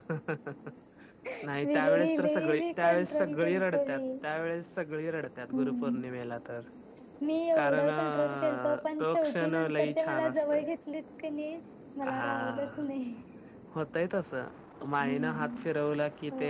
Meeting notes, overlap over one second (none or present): present